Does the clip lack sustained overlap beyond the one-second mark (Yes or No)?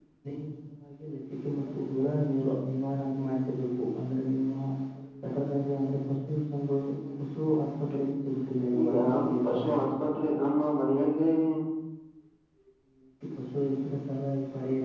Yes